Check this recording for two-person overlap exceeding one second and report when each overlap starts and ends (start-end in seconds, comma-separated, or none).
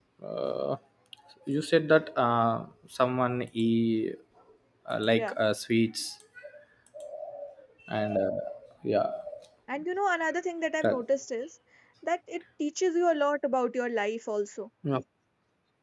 none